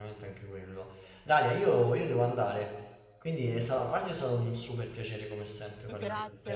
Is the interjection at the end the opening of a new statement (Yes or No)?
Yes